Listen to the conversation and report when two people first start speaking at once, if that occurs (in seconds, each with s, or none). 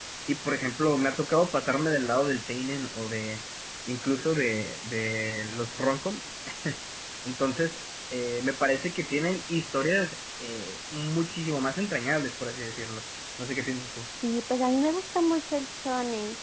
none